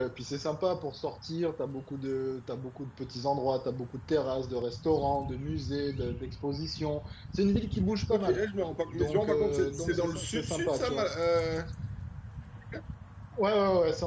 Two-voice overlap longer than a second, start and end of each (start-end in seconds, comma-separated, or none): 8.9-11.1